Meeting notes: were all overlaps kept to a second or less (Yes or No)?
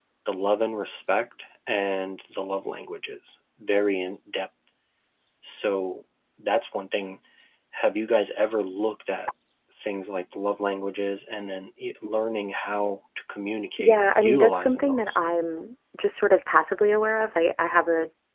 No